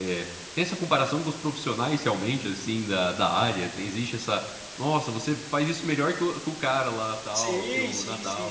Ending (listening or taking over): taking over